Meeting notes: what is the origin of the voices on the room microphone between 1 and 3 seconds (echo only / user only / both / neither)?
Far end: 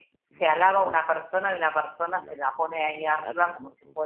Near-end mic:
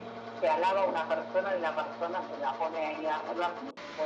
echo only